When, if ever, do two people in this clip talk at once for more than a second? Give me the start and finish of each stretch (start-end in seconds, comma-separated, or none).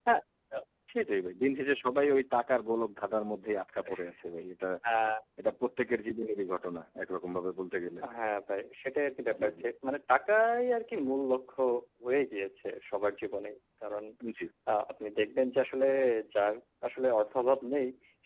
none